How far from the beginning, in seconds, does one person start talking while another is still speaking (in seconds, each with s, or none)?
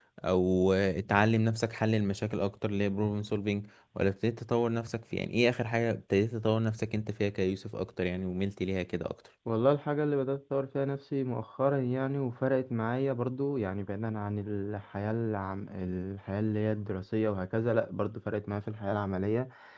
none